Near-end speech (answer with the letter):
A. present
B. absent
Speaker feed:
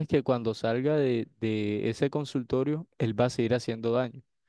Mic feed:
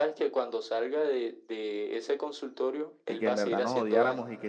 A